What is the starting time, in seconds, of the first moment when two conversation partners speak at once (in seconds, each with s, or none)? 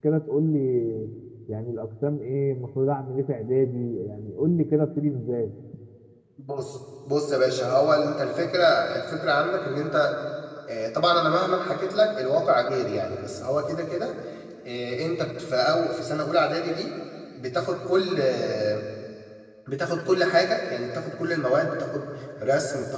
none